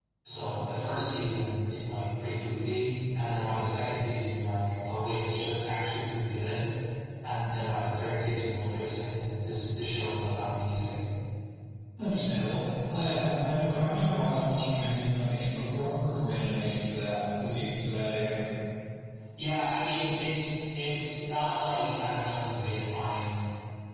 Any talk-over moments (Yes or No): No